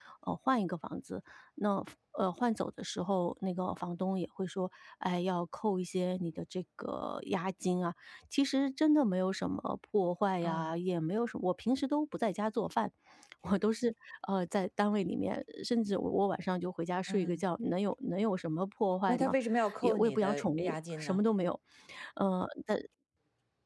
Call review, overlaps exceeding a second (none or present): present